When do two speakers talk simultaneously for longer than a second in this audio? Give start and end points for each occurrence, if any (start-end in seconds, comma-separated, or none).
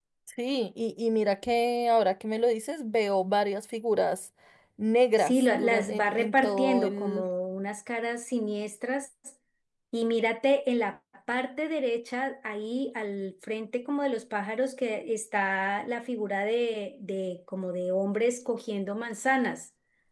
5.2-7.3